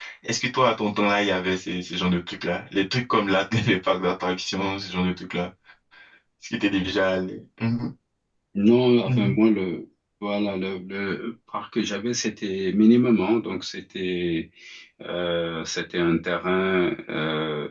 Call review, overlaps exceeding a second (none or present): none